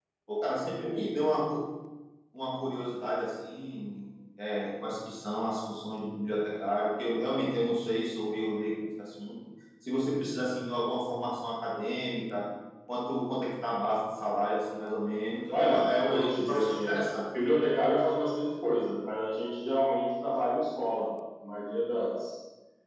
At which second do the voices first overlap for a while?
15.5 s

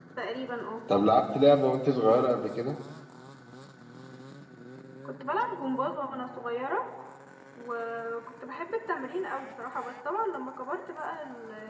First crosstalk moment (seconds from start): none

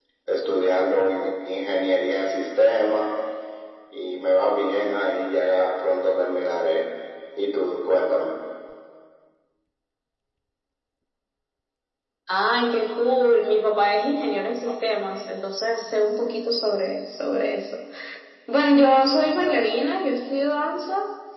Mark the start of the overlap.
none

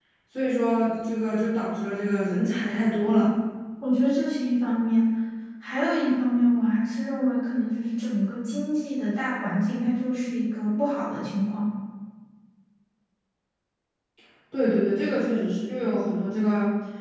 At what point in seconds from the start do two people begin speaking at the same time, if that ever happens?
none

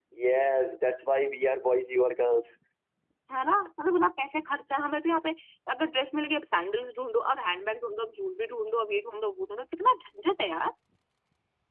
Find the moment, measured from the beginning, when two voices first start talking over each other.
none

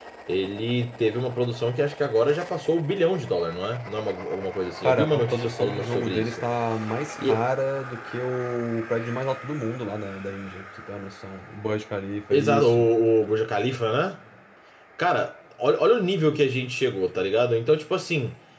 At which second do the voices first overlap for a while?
4.8 s

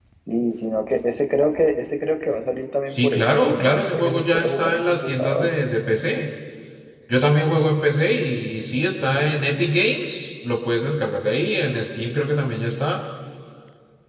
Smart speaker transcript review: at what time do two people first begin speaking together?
2.9 s

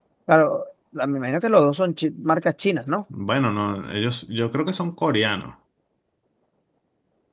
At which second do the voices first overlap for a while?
none

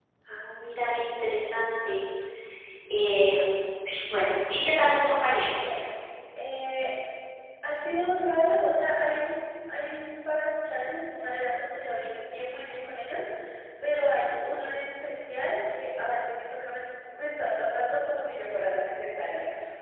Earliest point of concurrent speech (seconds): none

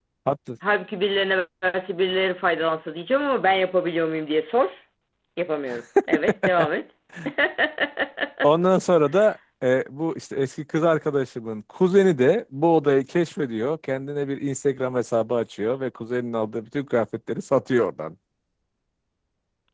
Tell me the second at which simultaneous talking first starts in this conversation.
none

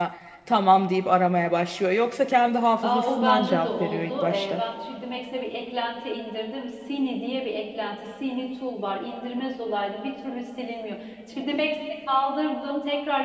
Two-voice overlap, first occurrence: 2.8 s

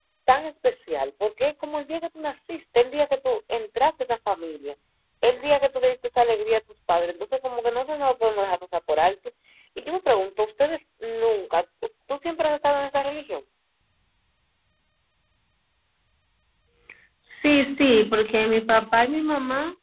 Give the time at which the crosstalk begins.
none

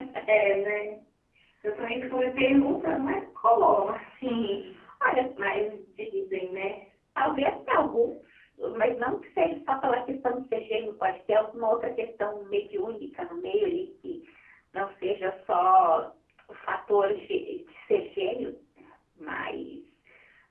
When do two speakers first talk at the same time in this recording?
none

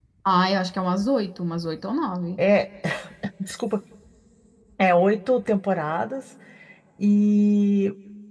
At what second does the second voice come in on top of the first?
none

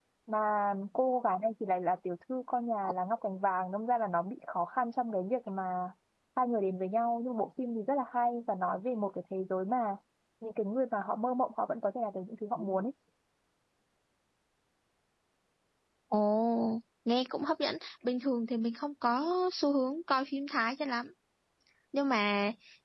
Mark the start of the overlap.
none

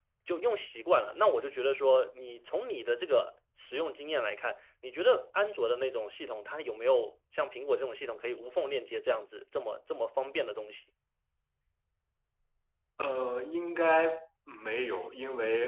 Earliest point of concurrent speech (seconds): none

